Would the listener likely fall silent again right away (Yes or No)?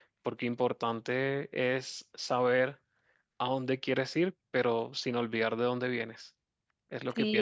No